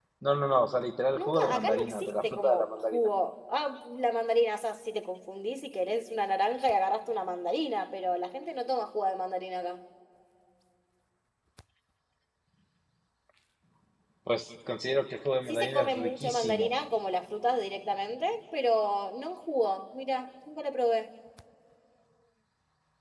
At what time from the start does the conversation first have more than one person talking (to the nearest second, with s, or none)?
1 s